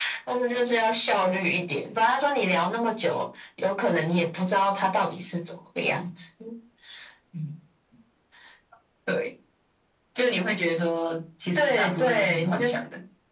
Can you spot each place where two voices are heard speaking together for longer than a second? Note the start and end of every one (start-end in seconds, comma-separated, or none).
11.6-12.8